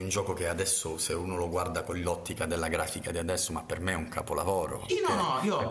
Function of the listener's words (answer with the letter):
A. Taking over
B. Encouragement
A